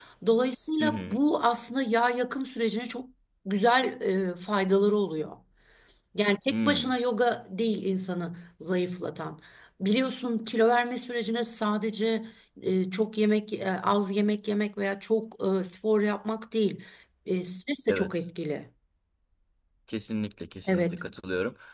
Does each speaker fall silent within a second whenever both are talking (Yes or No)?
Yes